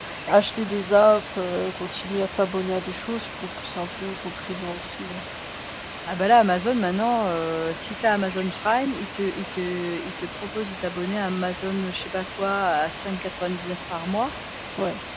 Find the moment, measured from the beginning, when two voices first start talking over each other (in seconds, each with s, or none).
none